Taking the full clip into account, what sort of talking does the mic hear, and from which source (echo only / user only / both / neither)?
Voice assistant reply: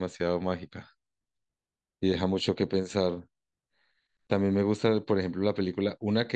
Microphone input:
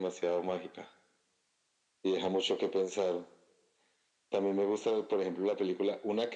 echo only